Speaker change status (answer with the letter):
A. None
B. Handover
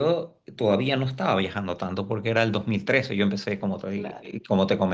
A